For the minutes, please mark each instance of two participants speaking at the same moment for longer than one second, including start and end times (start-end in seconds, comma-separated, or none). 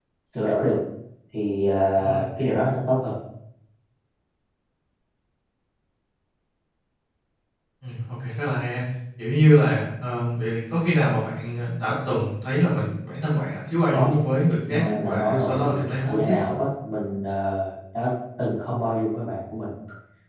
14.7-16.4